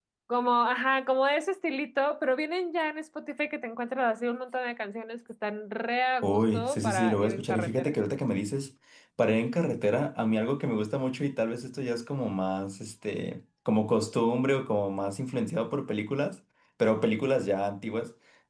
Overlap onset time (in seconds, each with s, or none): 6.2 s